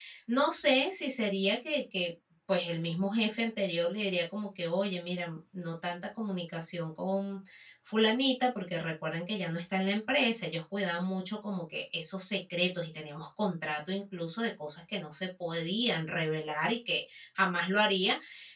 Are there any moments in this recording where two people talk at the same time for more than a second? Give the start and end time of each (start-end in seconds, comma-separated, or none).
none